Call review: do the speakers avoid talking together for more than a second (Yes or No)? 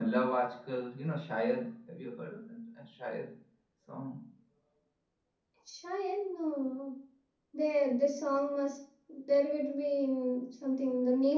Yes